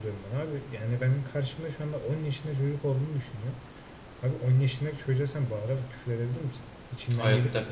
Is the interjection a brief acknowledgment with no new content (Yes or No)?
No